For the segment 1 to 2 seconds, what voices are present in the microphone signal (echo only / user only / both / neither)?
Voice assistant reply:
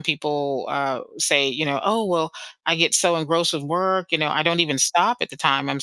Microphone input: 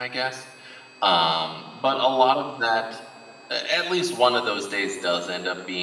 user only